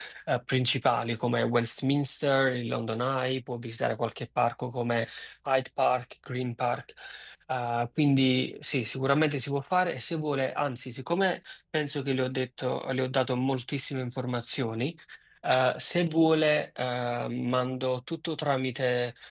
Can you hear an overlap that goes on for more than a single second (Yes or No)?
No